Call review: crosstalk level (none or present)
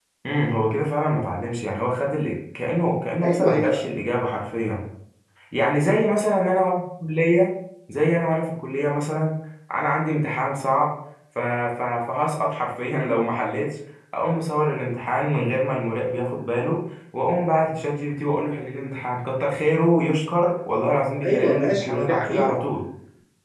present